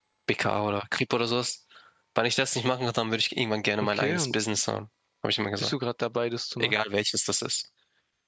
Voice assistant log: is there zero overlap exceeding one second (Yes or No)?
Yes